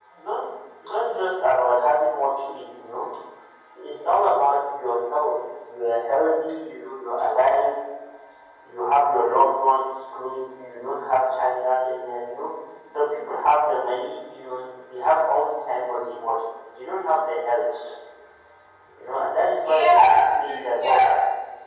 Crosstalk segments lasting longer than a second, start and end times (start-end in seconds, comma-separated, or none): 19.6-21.0